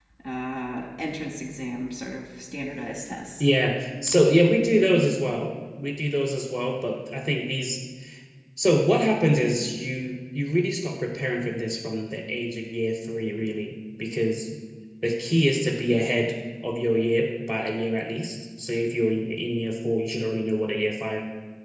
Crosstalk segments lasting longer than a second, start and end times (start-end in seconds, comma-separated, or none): none